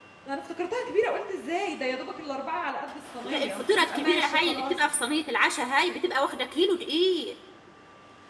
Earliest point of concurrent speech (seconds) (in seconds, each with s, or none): 3.2 s